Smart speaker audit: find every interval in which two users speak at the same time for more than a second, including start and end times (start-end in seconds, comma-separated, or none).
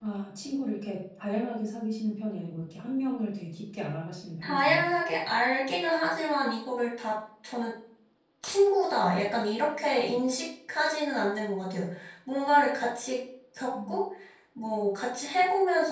none